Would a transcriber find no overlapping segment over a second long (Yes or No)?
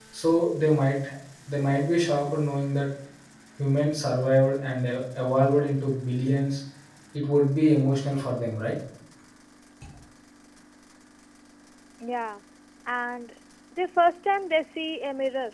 Yes